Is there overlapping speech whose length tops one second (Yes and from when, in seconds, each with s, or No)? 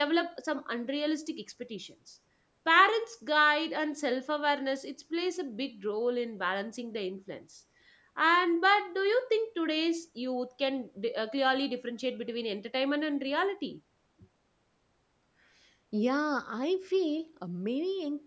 No